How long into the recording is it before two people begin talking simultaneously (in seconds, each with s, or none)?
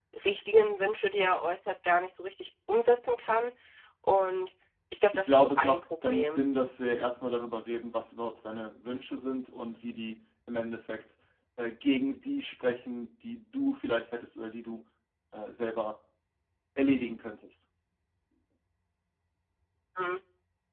5.2 s